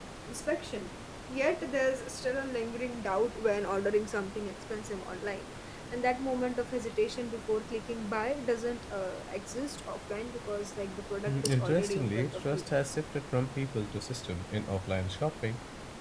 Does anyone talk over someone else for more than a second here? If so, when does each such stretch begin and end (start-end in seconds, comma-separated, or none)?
11.2-12.6